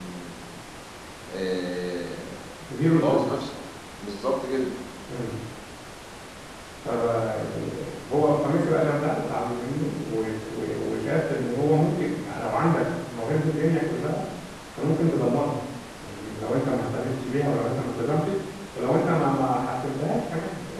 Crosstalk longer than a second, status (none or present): none